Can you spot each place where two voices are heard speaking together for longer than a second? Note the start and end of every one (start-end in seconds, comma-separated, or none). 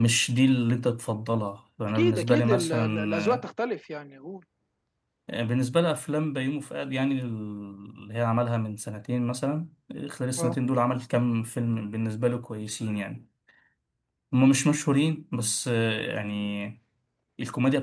1.9-3.5